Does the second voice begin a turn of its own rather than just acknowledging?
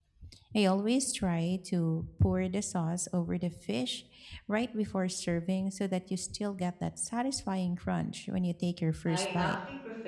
Yes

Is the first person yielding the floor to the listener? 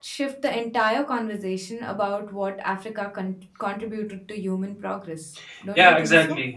Yes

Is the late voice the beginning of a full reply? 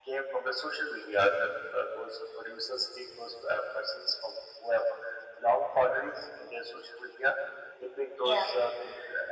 No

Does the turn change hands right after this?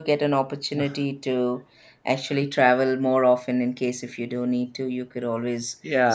Yes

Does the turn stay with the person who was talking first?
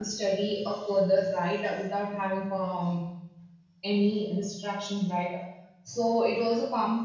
Yes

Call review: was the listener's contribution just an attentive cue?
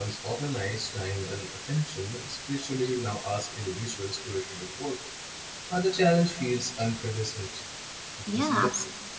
No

